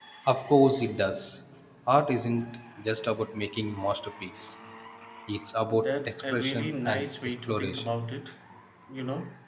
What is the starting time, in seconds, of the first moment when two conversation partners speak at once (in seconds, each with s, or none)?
5.8 s